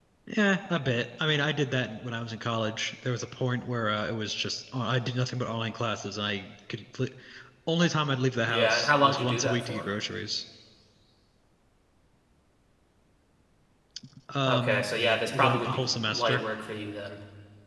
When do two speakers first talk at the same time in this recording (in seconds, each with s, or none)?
8.5 s